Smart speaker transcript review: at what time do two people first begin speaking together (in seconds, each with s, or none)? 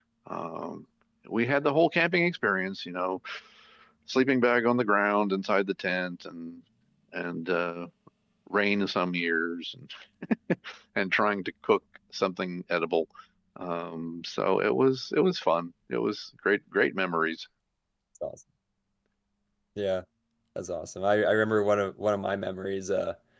none